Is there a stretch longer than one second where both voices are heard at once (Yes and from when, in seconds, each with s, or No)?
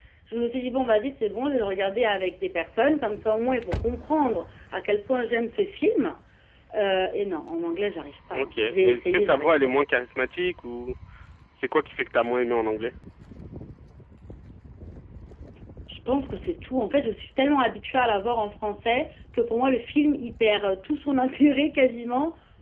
Yes, from 8.3 s